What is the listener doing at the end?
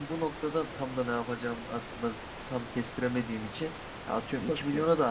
listening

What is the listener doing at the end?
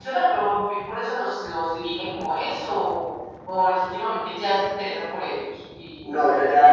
taking over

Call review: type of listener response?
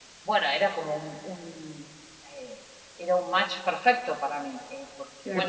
listening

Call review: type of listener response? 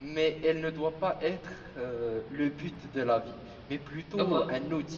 listening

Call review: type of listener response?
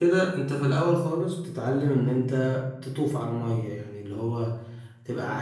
listening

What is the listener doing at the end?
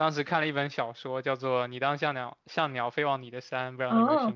taking over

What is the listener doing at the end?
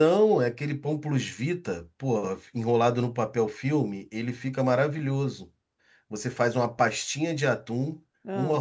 listening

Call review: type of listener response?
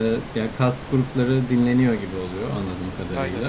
listening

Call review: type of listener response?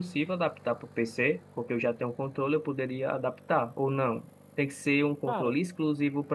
listening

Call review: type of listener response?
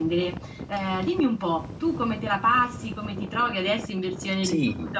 taking over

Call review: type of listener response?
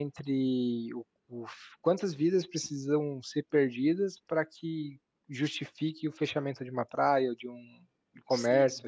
taking over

